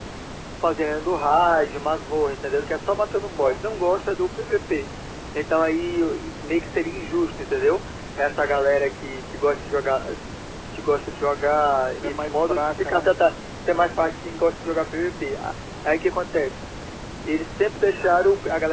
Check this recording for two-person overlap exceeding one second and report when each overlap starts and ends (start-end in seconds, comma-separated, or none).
11.9-13.2